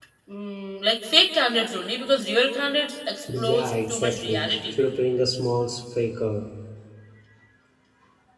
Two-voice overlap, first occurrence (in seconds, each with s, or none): 3.3 s